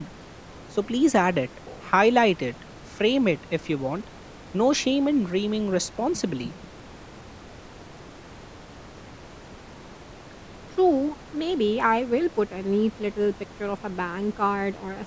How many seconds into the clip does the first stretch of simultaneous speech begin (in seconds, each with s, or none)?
none